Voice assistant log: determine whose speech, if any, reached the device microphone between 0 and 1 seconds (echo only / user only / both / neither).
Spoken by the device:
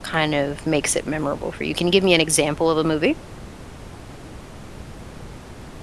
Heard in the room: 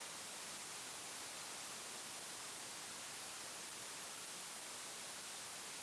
neither